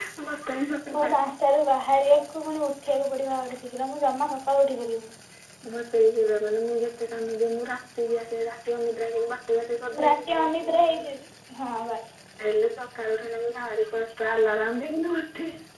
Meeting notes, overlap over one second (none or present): none